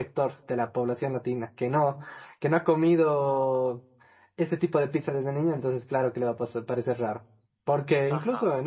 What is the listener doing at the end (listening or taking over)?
listening